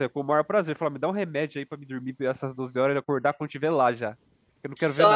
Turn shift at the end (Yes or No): Yes